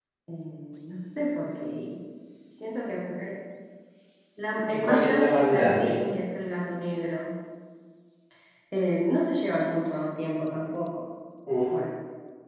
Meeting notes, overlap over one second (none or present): present